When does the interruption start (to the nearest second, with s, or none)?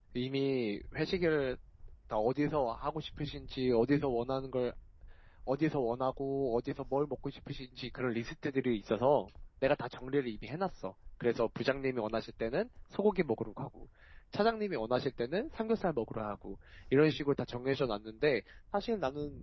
none